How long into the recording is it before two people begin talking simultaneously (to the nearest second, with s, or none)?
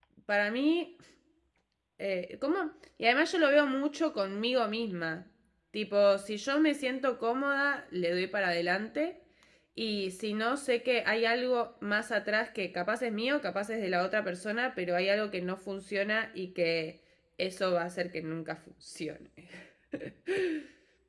none